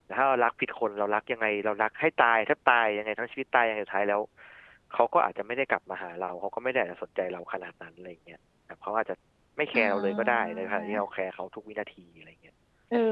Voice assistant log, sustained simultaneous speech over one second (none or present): present